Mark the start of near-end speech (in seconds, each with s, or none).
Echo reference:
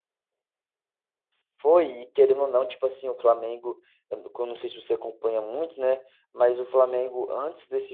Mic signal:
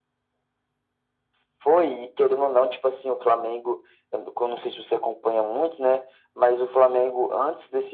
none